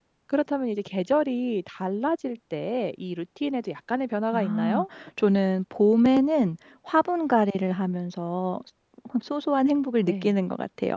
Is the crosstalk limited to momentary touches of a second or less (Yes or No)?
Yes